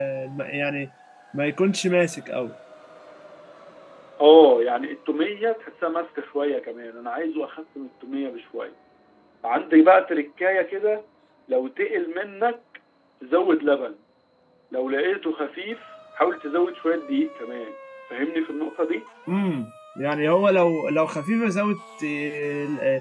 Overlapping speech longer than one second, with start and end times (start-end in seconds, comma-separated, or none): none